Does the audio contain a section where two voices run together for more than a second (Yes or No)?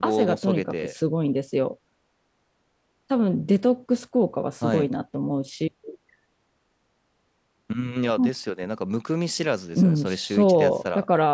Yes